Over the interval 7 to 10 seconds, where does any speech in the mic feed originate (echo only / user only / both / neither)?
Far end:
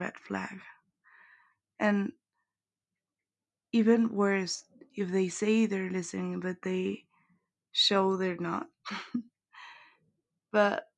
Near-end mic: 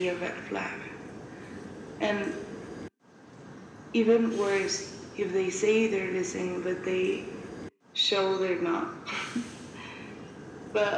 echo only